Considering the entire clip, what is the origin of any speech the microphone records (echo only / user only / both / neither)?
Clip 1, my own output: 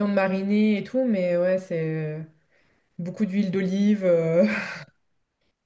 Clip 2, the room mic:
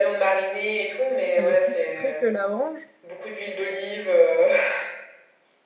both